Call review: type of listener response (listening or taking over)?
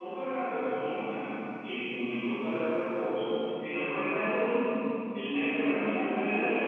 taking over